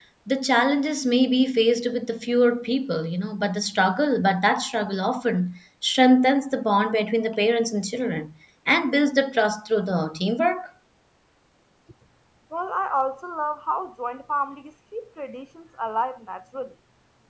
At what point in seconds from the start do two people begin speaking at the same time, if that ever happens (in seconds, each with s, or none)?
none